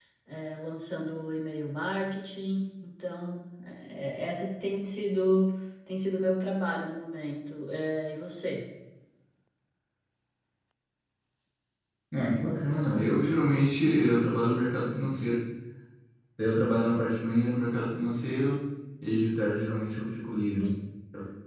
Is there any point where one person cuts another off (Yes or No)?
No